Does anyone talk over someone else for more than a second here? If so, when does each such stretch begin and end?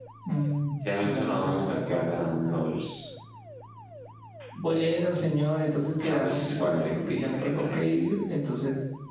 1.0-2.8, 6.0-8.0

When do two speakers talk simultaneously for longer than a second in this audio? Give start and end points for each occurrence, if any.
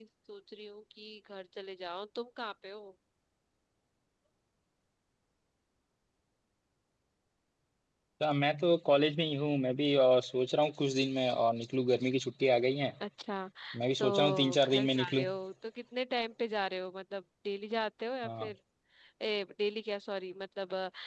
14.0-15.2

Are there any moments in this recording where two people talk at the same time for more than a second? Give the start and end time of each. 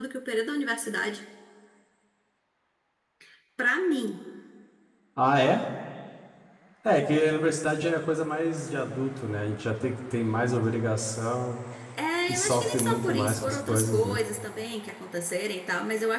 12.3-14.2

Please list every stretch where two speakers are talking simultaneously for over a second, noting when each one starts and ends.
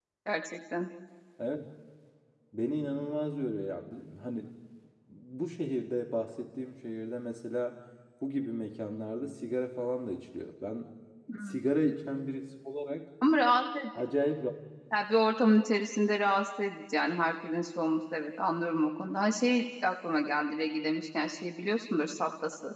none

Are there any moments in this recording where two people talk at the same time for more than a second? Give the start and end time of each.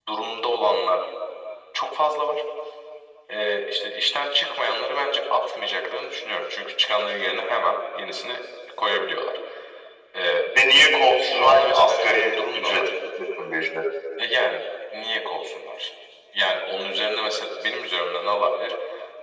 11.3-12.9

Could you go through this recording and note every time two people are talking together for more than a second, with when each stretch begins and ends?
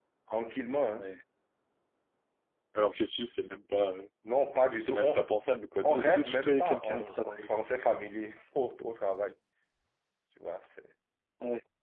5.8-7.5

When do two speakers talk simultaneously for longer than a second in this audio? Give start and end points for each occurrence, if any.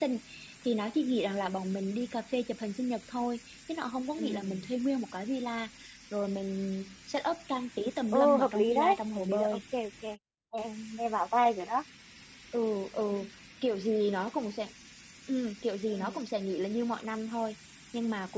8.1-9.6

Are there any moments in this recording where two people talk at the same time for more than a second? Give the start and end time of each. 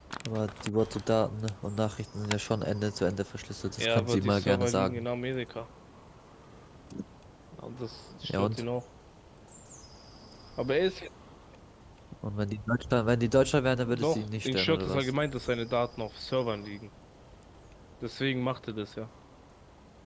3.8-5.0, 13.8-15.1

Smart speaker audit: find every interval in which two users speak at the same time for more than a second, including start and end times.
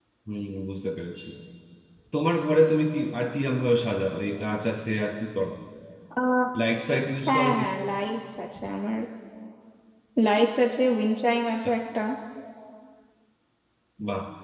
none

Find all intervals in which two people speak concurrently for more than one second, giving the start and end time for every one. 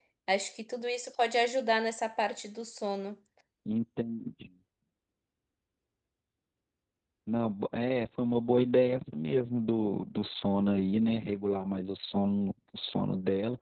none

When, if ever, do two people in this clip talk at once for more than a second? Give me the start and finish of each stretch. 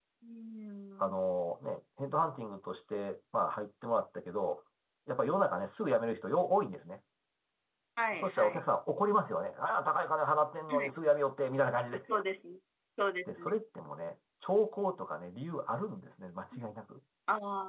none

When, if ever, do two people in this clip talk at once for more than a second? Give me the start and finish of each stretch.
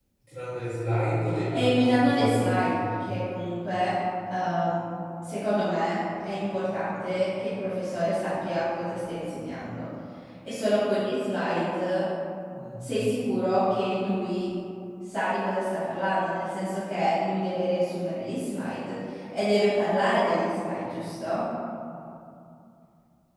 1.5-2.7

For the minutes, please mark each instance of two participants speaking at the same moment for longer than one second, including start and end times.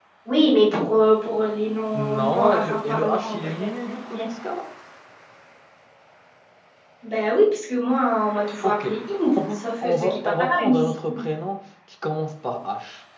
1.9-3.6, 9.3-11.2

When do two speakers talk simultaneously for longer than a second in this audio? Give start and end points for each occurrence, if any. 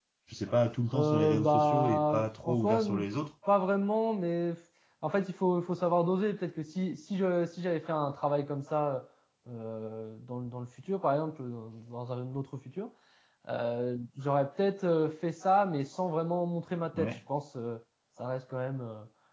0.9-3.0

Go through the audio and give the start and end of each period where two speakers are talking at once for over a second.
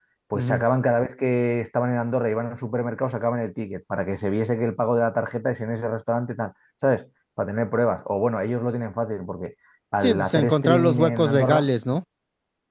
10.0-11.7

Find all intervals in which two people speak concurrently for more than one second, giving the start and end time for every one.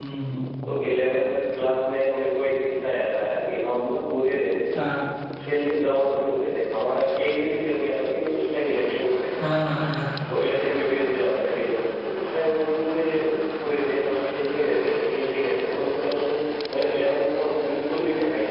none

